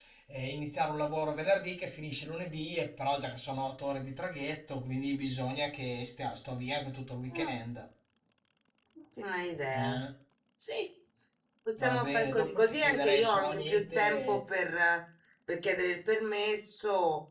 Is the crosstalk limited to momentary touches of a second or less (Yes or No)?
No